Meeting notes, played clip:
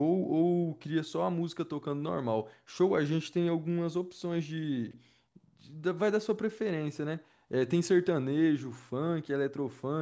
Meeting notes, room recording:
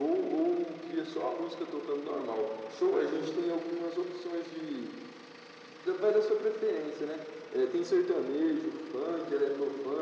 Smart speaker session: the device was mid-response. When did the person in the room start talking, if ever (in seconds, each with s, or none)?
none